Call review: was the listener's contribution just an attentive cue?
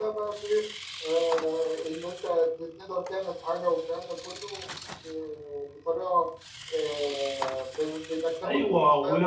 No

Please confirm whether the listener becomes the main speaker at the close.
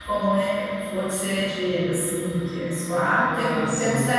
No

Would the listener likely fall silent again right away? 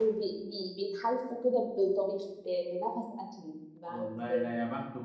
No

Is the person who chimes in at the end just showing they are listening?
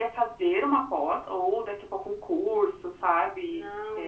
No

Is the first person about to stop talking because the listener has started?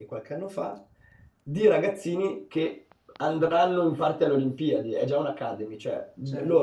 No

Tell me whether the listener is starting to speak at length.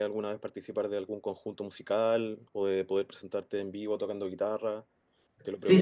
Yes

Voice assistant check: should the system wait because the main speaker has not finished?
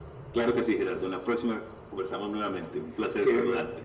No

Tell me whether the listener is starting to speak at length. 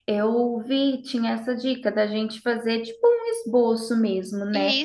No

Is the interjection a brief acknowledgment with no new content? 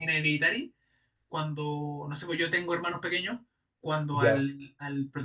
Yes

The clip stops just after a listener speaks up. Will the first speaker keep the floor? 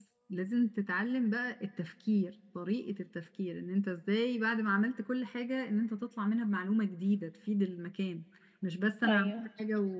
Yes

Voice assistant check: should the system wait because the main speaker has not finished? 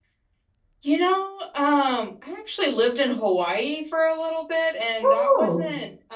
Yes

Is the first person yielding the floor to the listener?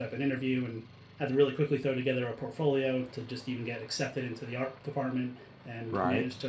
No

